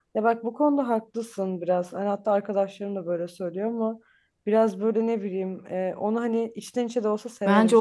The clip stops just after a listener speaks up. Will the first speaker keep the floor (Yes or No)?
No